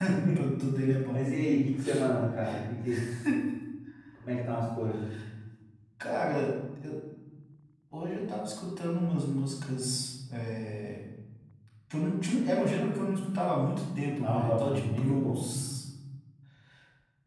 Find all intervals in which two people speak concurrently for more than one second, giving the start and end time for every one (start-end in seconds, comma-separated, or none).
14.2-15.4